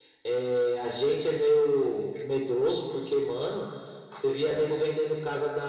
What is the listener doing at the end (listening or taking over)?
listening